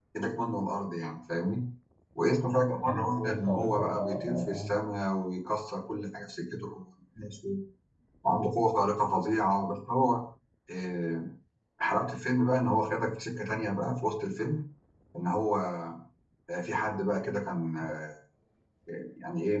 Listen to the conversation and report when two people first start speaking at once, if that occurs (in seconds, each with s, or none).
2.8 s